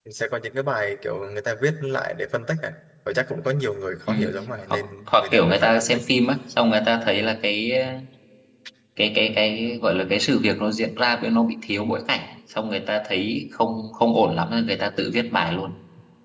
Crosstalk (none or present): present